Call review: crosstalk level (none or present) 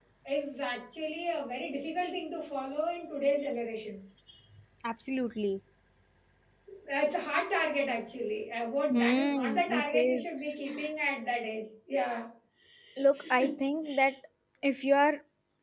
present